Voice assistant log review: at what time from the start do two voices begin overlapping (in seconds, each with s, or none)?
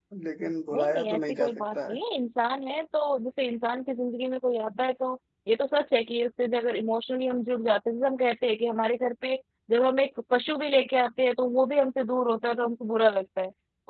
0.7 s